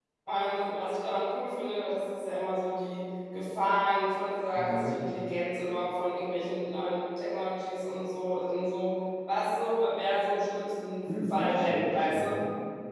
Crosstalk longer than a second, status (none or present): present